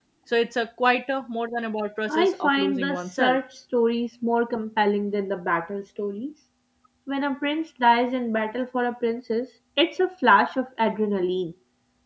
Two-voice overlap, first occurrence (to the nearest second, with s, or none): 2 s